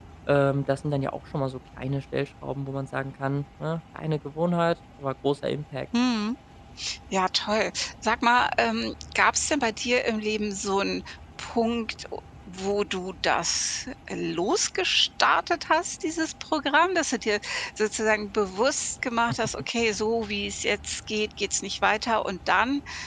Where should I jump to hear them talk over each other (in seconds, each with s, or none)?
none